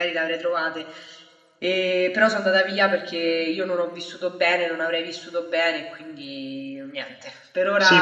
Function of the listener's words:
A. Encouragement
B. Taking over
B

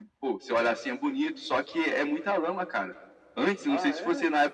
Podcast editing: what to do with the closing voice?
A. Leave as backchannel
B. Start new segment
A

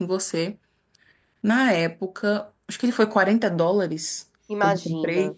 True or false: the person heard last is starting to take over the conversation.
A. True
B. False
B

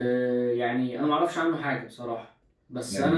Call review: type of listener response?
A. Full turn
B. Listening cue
B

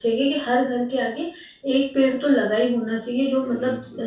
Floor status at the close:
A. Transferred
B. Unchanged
B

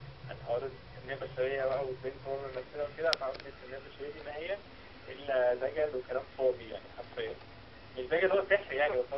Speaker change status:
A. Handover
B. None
B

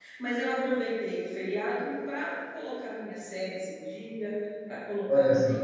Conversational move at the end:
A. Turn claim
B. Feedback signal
B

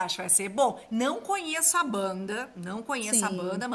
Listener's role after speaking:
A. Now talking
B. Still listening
B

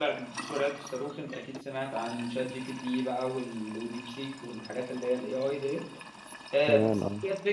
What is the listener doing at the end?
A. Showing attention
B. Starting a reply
A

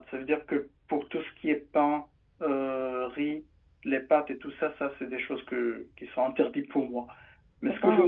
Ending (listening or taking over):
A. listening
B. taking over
A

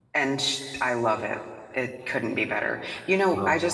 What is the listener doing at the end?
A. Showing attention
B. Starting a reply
A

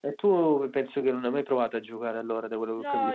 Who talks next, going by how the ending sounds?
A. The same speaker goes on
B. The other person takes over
B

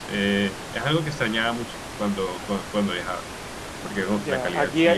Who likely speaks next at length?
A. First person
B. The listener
B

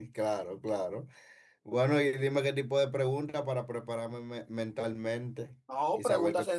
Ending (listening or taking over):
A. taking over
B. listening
A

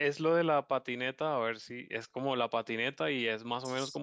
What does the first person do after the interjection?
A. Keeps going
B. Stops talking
A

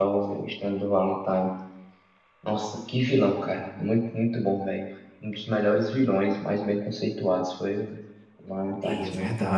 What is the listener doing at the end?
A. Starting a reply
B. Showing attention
A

